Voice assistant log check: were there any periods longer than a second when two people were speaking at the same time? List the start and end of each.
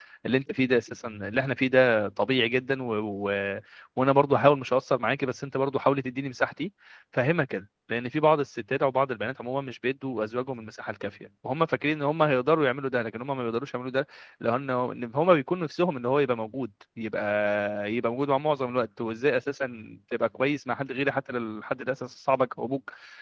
none

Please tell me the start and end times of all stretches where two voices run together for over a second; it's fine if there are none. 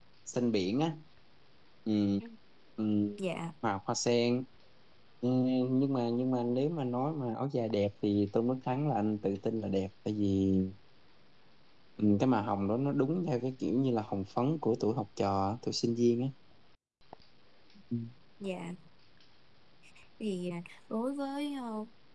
none

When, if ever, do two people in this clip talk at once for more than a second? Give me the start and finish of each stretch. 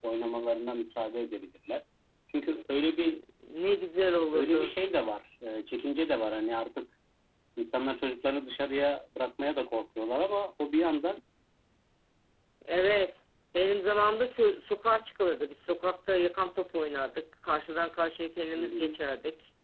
none

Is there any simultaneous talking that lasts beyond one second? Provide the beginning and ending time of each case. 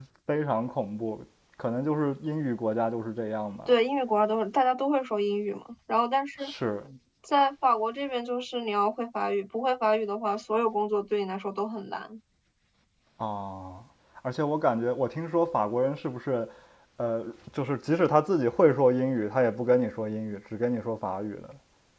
none

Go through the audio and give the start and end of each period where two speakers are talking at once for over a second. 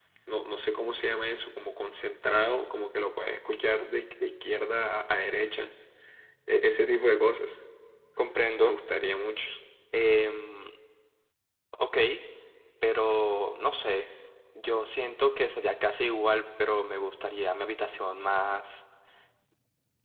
none

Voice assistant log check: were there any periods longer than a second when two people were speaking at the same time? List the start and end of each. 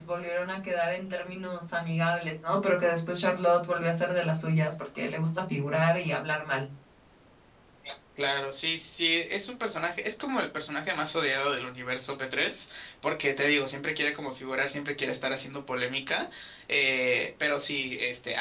none

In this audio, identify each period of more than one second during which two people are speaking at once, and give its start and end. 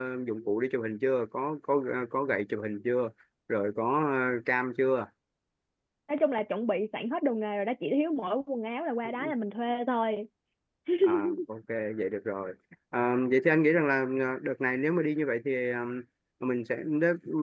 none

